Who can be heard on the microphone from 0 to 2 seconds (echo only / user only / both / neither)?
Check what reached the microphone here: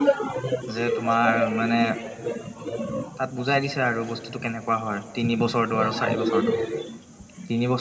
both